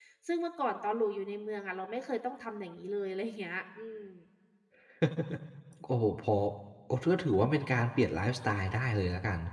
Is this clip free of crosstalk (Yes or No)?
Yes